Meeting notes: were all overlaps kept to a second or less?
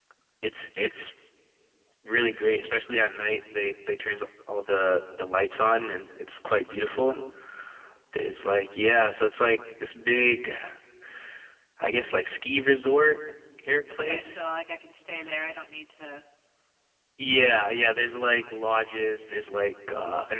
Yes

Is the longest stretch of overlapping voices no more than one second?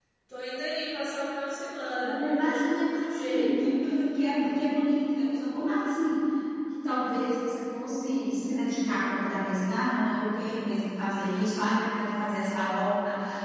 No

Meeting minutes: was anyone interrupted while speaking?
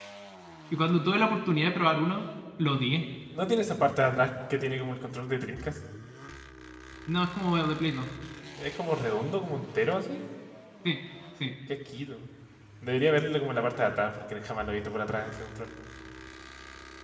No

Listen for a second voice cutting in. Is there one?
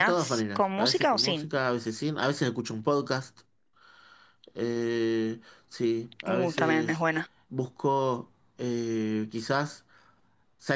Yes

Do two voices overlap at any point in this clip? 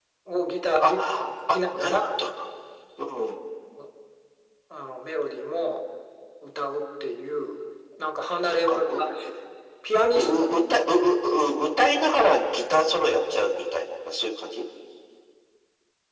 Yes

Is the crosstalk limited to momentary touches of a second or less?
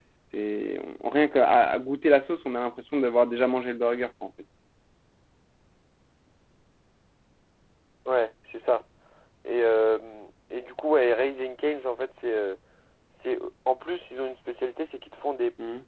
Yes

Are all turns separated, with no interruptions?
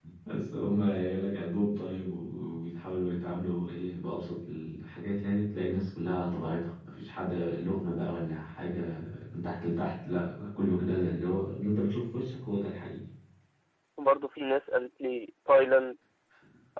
Yes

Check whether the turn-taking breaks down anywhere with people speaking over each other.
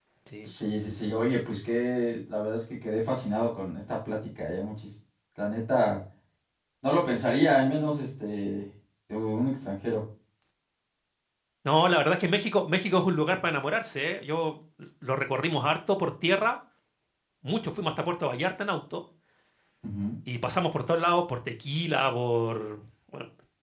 No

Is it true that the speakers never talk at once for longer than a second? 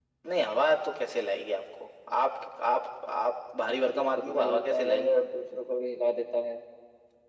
No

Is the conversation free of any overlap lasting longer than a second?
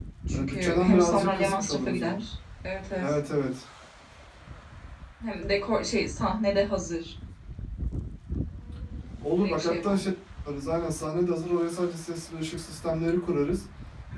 No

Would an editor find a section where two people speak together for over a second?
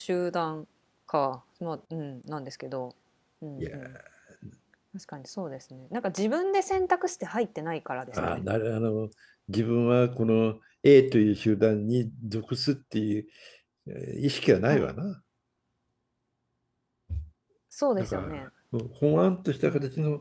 No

